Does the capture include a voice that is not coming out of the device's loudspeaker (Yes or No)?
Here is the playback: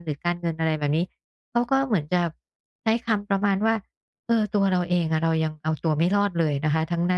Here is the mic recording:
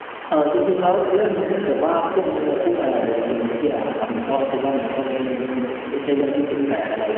Yes